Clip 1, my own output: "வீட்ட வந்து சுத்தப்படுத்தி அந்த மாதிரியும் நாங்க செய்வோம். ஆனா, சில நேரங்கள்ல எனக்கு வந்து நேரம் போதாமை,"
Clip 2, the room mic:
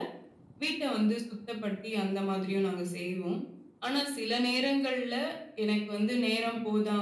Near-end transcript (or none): none